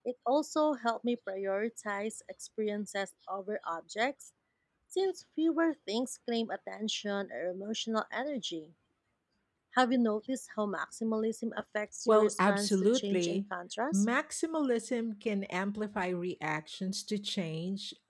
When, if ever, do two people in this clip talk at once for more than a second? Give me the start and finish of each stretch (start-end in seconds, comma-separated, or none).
12.1-13.4